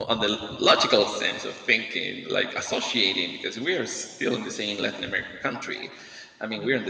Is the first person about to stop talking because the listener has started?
No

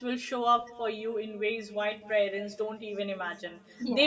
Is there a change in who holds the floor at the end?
No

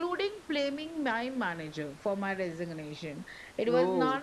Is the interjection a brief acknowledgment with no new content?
Yes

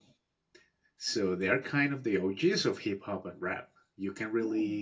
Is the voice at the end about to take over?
No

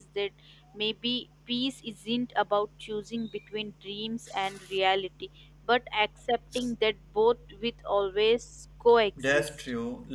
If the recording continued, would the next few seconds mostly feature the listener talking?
Yes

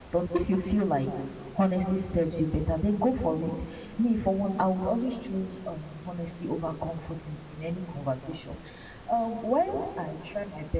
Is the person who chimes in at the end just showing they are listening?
Yes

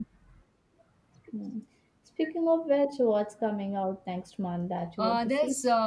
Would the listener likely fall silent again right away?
No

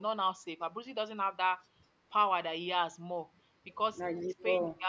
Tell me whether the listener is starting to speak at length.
No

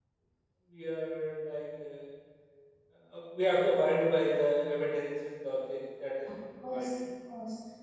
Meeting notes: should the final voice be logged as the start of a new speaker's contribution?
Yes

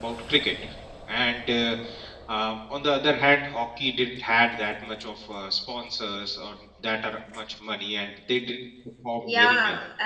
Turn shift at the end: Yes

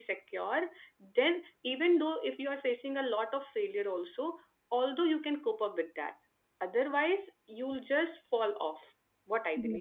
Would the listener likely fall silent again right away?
No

